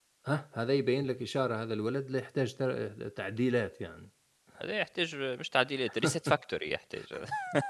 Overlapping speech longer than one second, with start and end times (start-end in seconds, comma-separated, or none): none